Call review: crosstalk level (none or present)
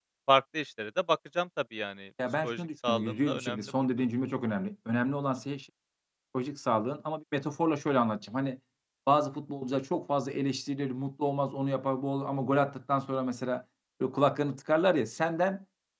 present